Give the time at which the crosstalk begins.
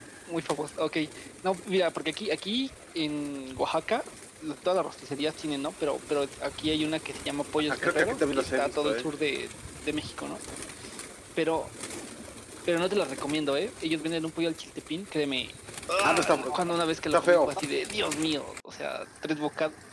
8 s

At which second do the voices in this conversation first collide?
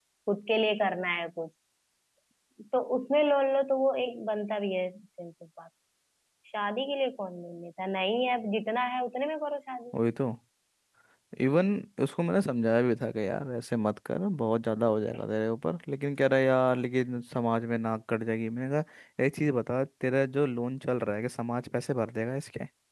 none

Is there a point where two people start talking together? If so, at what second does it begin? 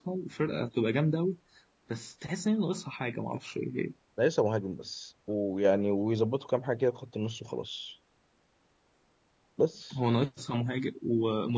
none

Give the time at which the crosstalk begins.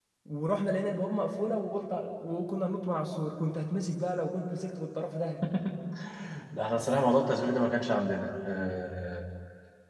none

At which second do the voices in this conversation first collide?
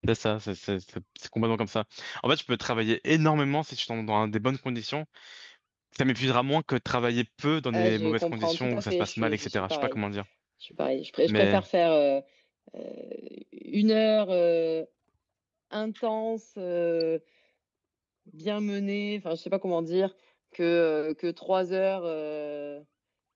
8 s

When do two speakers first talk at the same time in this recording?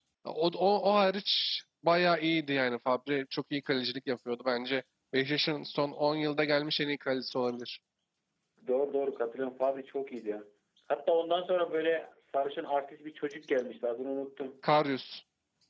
none

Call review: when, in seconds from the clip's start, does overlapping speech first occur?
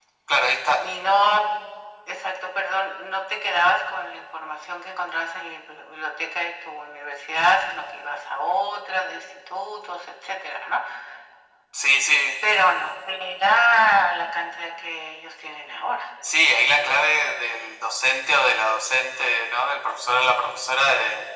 none

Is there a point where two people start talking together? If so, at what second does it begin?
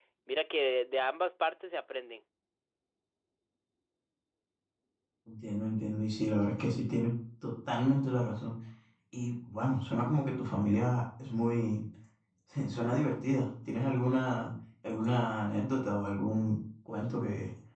none

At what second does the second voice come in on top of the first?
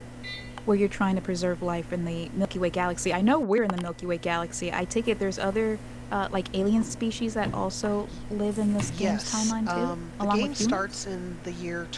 9 s

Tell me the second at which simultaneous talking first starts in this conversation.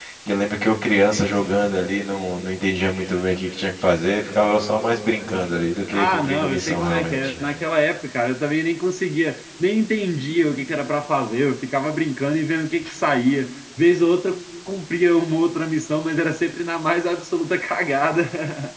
6 s

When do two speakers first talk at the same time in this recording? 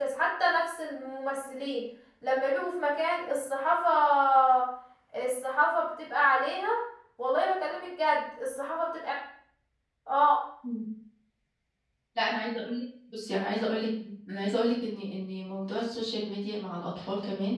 none

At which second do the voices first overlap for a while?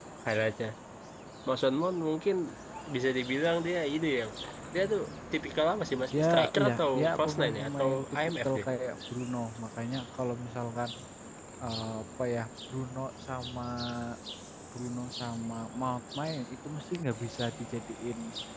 6 s

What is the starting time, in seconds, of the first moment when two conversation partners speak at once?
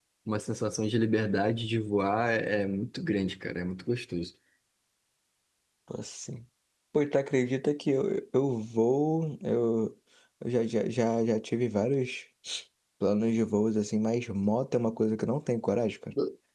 none

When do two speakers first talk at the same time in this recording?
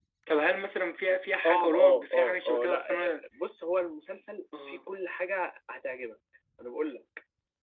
1 s

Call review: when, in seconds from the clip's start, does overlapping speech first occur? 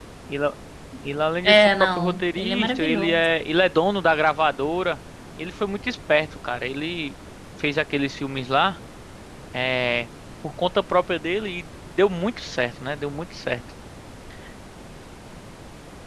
1 s

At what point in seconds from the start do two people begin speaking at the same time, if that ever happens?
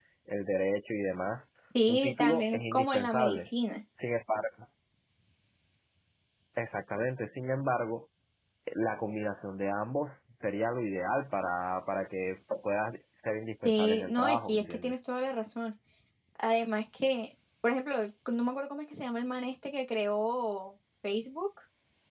2 s

